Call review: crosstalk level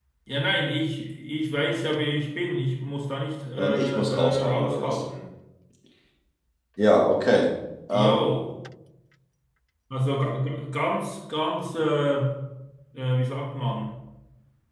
present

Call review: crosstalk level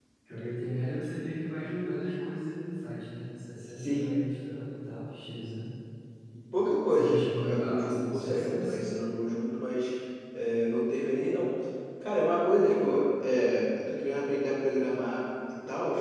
present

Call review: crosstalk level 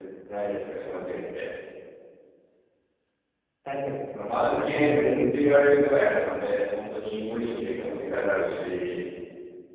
present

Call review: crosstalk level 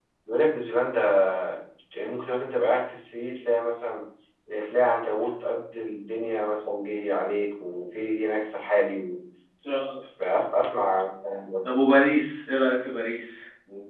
none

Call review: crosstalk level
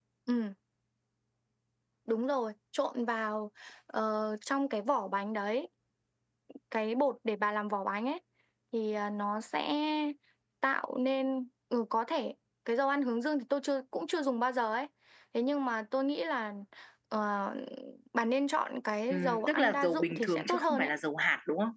present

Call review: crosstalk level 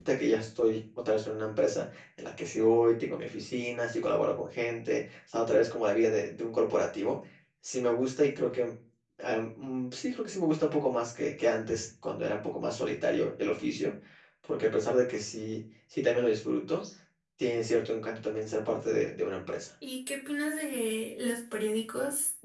none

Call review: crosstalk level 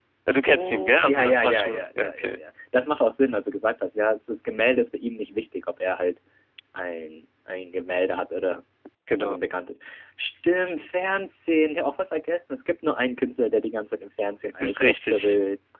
present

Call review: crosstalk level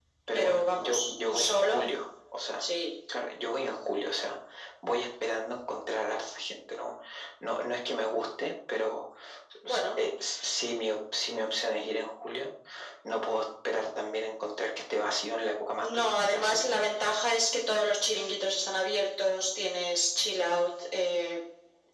present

